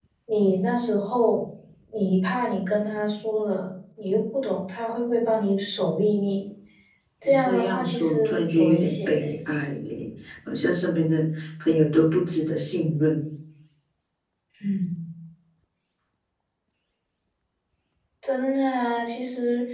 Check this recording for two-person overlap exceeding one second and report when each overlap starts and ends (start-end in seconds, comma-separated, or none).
7.2-9.2